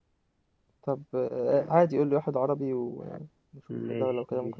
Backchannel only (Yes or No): No